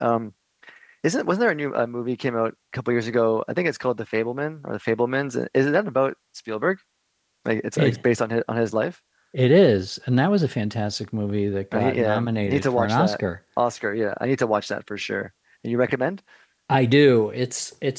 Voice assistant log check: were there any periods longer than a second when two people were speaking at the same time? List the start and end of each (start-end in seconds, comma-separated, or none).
11.7-13.2